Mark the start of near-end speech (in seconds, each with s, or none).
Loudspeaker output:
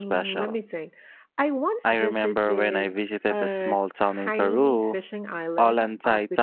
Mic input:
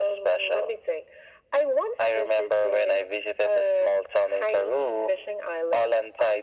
none